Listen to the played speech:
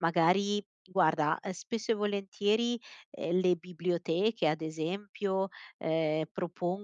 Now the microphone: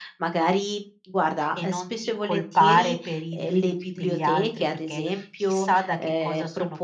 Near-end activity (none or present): present